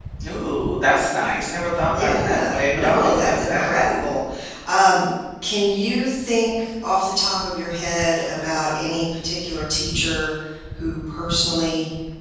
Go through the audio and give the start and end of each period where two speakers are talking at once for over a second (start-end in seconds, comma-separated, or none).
1.9-3.7